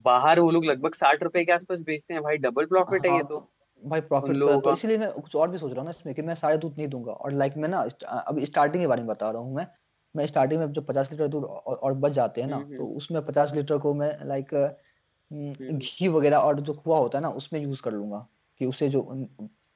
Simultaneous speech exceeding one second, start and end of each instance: none

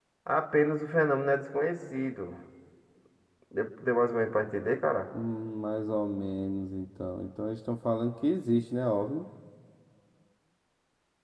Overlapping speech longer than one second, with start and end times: none

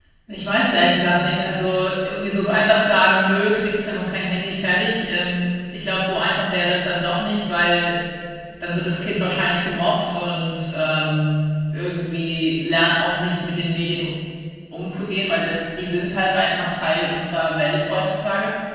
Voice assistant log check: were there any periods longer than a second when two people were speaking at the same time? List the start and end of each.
none

